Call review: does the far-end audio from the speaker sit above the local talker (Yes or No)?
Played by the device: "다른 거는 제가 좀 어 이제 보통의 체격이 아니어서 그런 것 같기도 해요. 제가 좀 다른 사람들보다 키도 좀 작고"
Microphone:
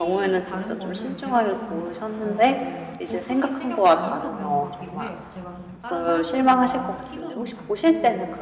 No